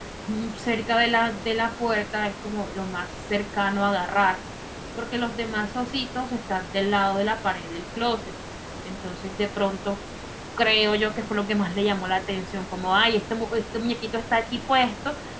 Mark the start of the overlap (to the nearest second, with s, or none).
none